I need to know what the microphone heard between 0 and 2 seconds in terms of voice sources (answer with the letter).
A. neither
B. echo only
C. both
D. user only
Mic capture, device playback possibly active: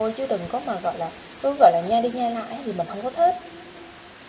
D